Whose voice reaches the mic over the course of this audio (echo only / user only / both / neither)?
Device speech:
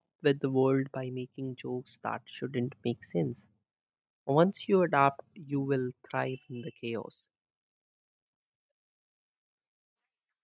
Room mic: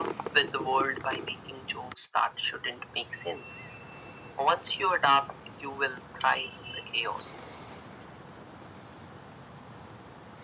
echo only